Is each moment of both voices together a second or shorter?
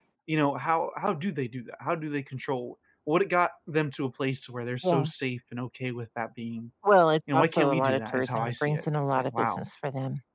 No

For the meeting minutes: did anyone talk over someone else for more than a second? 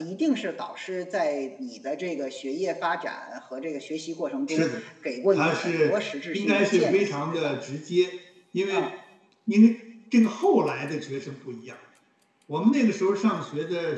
Yes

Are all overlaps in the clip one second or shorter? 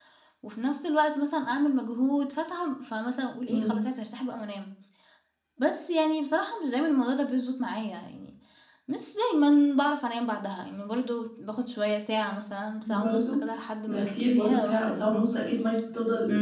No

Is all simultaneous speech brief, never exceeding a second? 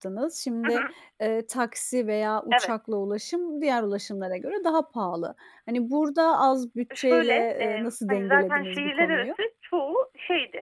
No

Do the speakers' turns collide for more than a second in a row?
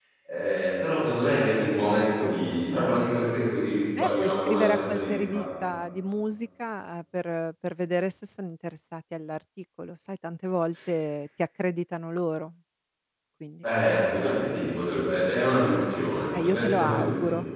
Yes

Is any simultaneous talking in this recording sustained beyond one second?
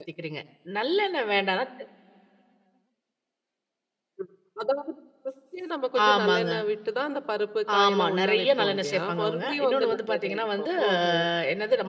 Yes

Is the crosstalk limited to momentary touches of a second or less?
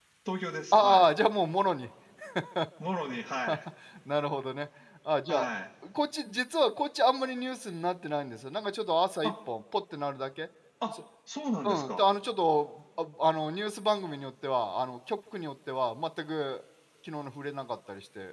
Yes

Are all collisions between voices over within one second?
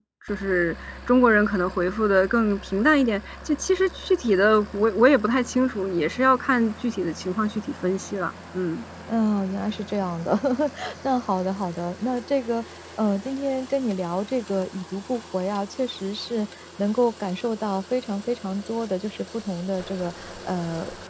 Yes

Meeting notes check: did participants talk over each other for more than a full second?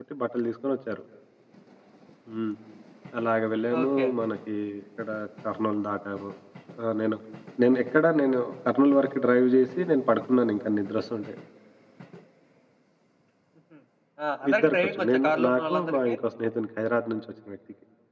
Yes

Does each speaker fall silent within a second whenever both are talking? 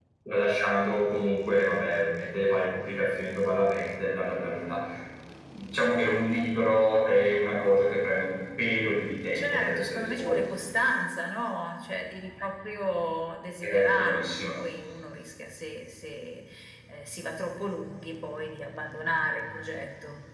No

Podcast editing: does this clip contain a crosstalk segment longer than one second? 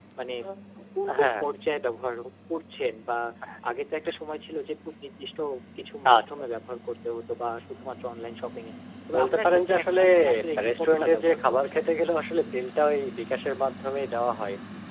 Yes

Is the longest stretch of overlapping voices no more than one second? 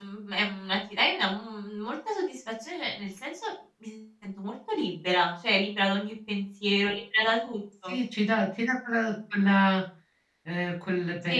Yes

